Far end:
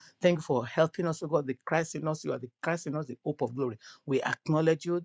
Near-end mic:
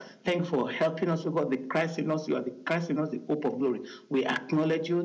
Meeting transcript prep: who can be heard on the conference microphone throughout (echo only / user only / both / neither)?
echo only